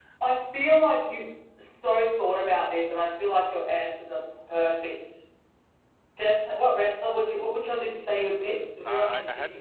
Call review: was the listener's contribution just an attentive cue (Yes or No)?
No